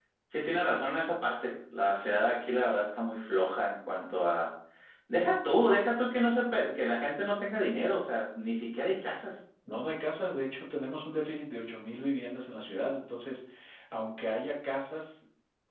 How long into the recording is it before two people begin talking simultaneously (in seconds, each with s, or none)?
none